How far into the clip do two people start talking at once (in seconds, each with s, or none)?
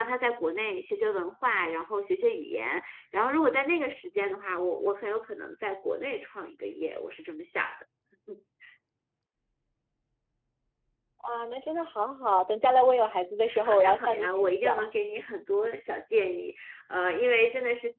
13.4 s